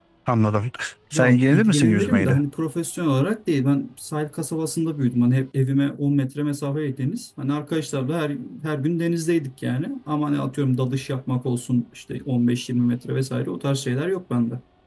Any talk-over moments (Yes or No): Yes